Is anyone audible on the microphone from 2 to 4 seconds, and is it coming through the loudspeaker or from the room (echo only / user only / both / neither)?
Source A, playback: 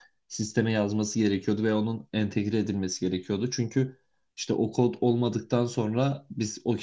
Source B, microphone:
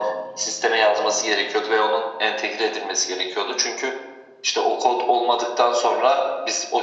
echo only